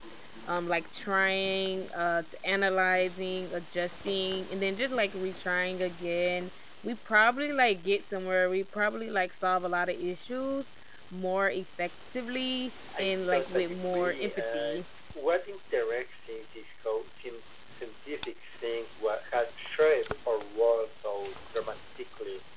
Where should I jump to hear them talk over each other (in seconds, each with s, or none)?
12.9 s